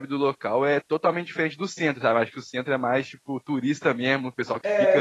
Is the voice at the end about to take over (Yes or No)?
Yes